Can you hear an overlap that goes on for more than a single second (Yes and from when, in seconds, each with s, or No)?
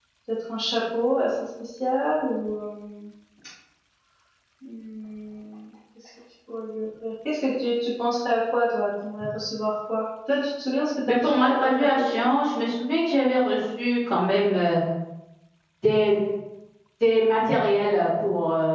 Yes, from 11.0 s